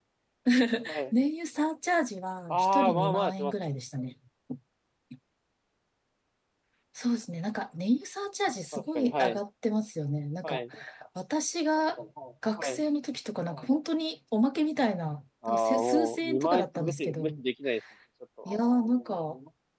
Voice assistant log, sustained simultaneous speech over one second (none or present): present